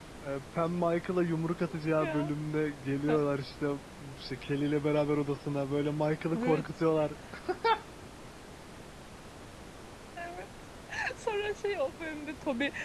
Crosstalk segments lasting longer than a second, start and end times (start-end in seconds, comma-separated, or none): none